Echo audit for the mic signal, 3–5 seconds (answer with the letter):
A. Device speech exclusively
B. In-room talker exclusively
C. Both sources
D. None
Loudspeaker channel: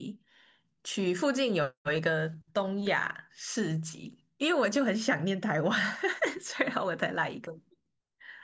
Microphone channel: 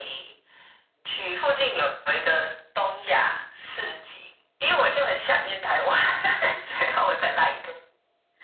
A